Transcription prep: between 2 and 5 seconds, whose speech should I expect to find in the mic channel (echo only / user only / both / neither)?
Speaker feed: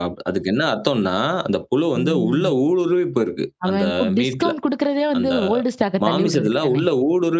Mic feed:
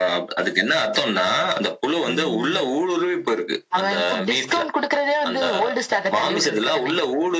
echo only